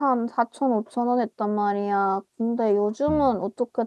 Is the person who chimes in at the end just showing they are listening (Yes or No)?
Yes